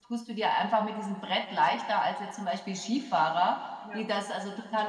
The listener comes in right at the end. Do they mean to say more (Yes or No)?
No